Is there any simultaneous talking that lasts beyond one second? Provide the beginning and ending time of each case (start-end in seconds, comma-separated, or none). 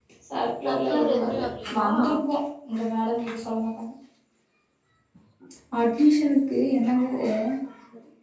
0.6-1.9